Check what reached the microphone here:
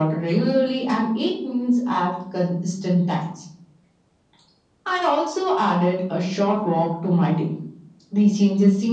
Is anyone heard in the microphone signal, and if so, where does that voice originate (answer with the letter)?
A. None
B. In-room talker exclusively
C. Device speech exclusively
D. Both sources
C